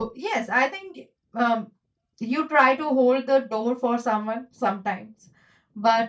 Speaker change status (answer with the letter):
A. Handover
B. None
B